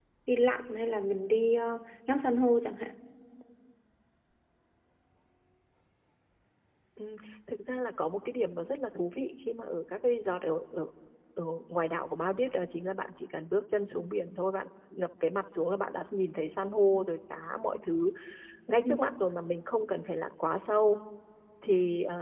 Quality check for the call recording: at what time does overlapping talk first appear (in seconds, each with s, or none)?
none